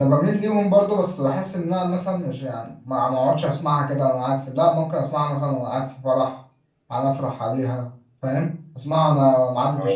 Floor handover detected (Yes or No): No